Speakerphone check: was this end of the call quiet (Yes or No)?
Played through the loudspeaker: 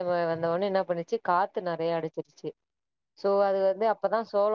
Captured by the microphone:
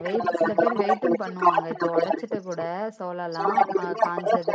No